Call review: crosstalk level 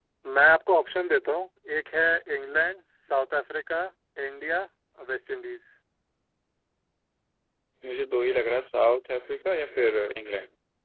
none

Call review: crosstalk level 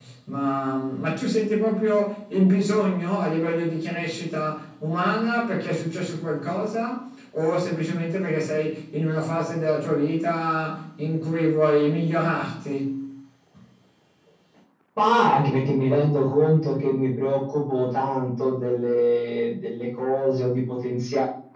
none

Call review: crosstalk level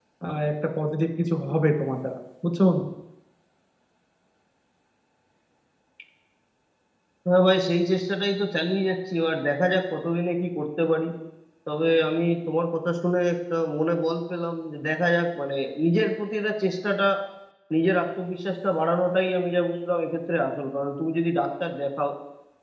none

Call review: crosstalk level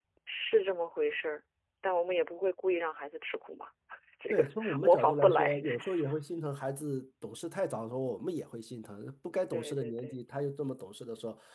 present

